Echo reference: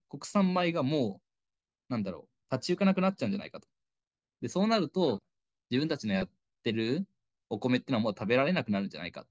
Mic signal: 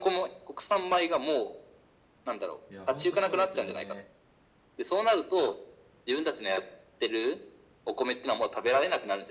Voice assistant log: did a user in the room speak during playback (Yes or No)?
Yes